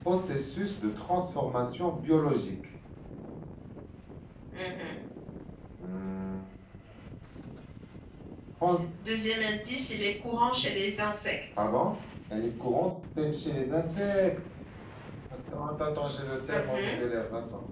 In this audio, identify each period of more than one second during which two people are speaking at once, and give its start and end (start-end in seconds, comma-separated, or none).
none